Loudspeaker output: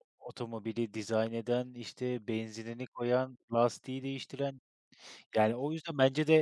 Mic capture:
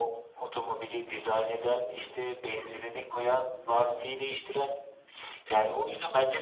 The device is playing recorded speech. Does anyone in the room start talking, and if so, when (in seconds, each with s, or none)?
1.7 s